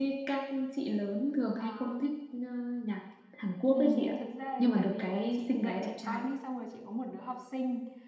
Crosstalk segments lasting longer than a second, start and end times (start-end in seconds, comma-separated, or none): 4.6-6.2